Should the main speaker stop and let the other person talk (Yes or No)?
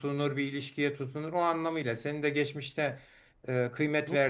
No